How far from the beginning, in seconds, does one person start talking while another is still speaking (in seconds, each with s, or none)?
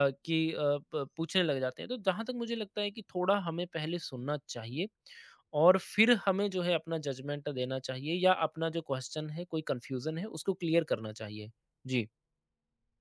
none